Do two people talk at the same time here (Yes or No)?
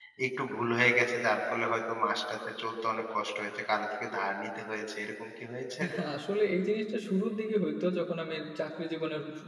No